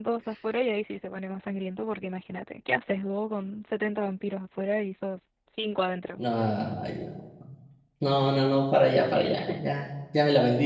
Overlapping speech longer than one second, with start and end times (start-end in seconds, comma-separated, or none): none